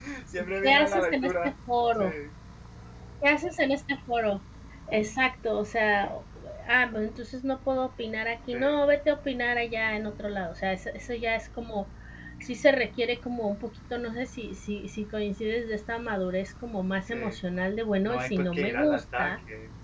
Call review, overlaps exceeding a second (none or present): present